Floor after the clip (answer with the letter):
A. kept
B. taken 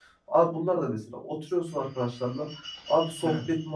A